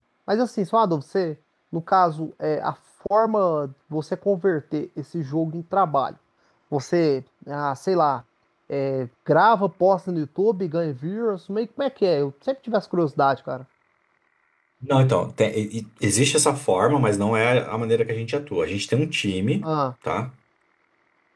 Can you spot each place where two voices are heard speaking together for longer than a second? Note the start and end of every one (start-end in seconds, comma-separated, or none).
none